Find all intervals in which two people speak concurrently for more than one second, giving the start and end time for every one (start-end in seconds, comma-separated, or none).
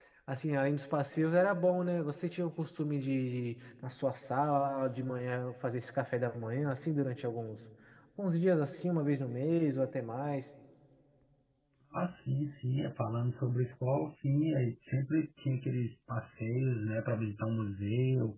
none